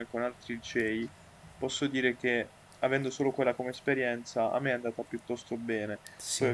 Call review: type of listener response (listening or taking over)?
listening